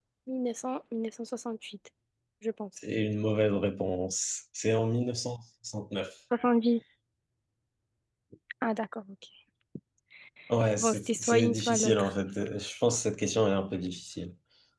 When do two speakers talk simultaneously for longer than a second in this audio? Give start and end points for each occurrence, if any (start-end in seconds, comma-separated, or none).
10.8-12.1